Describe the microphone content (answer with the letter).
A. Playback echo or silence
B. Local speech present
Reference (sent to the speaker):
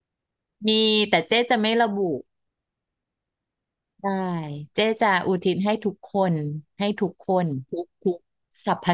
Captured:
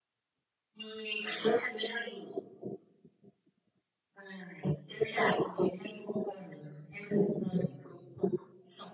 A